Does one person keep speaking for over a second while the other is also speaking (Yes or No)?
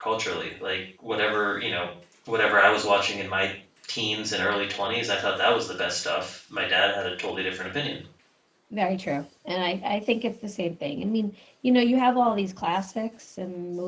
No